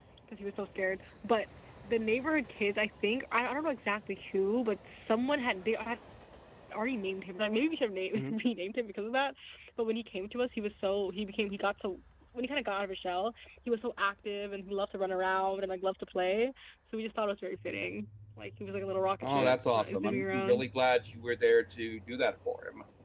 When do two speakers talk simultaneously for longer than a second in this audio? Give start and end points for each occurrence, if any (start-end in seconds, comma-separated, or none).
19.2-20.6